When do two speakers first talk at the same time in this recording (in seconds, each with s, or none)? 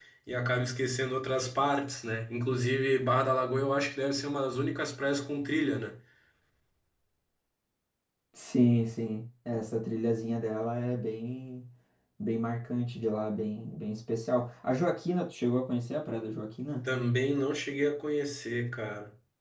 none